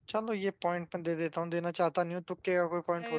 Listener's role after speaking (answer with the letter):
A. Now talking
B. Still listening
A